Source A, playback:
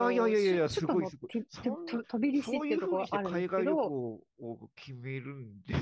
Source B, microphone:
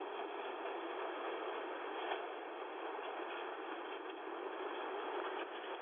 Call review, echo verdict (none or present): none